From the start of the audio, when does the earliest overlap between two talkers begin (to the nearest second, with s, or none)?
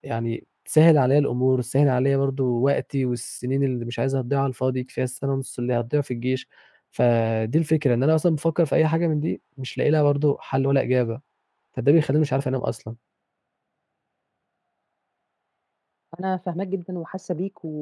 none